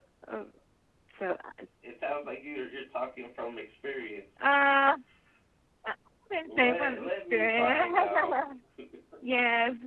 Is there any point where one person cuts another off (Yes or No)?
Yes